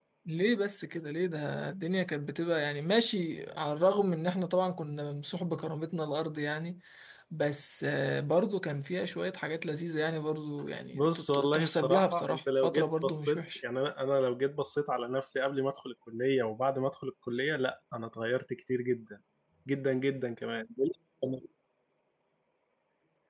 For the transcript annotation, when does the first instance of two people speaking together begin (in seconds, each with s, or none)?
10.9 s